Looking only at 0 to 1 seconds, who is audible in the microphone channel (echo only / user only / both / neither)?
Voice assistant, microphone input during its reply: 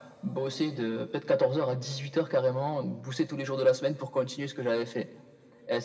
echo only